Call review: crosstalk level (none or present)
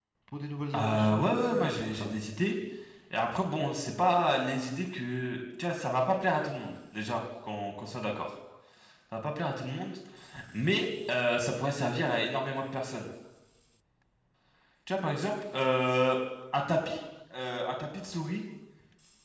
present